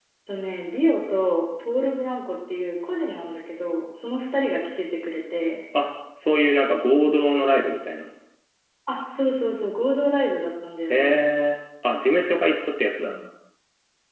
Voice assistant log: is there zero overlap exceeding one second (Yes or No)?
Yes